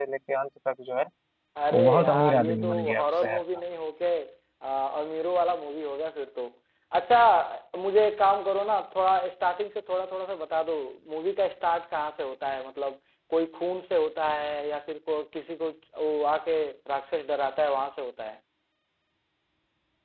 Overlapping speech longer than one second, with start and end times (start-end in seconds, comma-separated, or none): 1.7-3.4